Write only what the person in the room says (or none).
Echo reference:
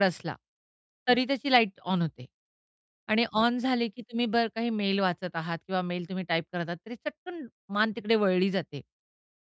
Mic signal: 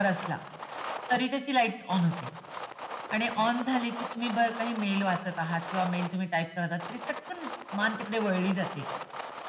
none